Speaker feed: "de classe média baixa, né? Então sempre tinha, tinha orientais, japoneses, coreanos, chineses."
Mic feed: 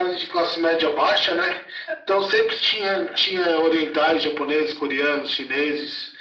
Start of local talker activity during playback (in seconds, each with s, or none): none